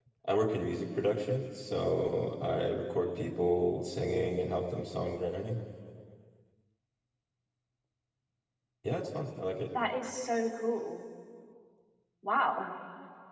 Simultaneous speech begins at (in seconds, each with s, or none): none